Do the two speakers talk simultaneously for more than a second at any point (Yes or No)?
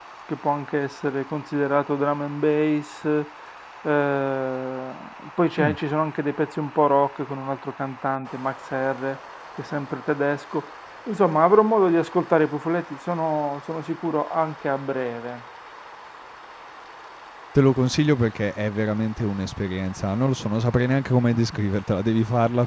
No